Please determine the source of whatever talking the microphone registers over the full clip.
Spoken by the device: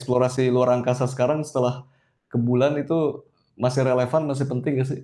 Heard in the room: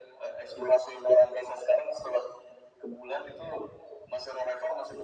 echo only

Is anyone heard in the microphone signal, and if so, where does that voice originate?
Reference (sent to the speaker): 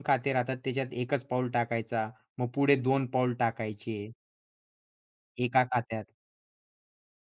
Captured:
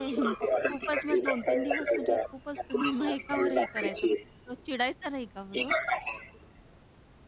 both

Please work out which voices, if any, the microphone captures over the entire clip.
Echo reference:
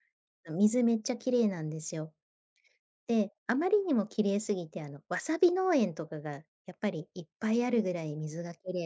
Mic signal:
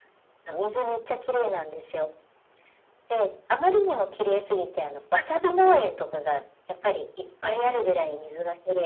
both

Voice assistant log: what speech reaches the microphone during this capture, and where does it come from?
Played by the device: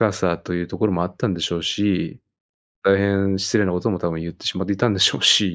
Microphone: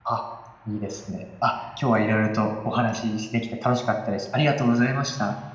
user only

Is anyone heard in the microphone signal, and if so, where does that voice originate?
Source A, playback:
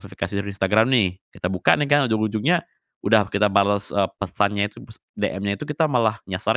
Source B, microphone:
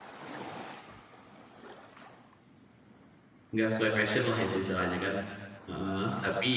user only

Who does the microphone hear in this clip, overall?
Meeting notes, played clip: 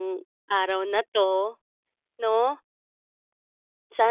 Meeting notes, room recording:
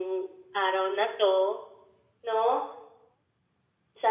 echo only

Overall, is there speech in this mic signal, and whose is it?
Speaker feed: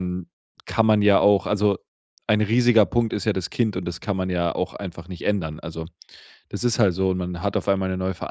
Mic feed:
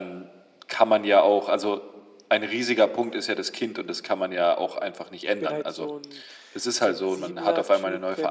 both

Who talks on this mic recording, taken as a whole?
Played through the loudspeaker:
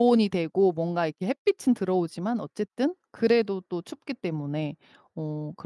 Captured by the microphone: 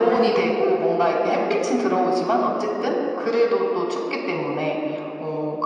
echo only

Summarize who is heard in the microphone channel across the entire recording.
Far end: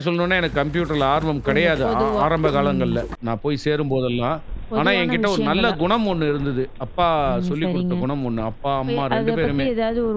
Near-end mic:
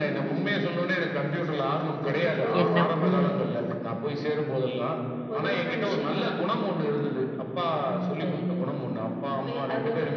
both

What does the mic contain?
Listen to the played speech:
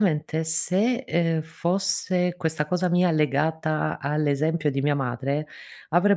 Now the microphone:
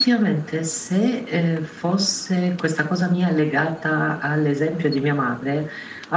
echo only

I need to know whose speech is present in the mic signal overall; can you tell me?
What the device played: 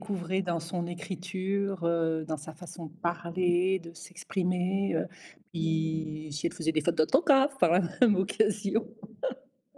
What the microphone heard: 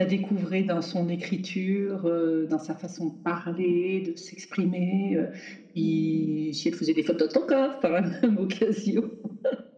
echo only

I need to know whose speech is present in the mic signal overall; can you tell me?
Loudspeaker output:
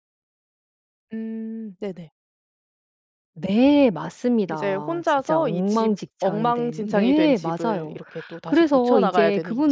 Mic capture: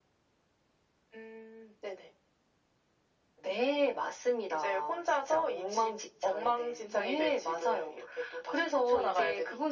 echo only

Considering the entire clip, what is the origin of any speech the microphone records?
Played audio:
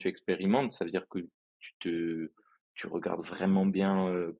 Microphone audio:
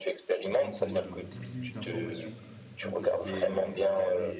both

